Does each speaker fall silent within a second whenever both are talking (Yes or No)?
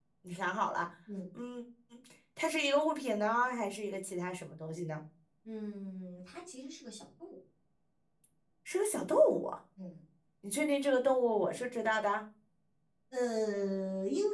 Yes